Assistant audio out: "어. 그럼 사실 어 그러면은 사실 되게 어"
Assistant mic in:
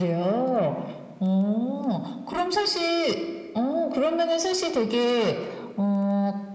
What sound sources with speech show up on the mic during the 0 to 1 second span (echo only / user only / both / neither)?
echo only